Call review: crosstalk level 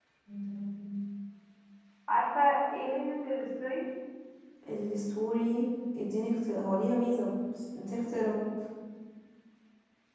none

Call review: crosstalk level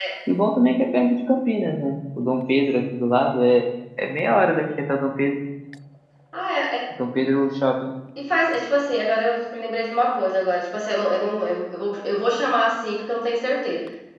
none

